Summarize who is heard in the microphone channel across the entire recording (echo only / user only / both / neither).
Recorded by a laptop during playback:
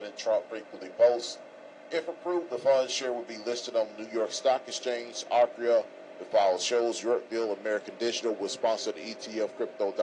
echo only